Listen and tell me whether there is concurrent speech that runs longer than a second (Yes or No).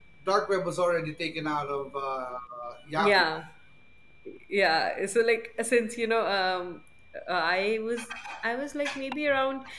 No